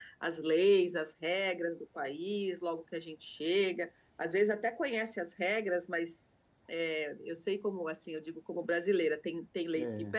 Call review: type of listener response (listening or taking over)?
listening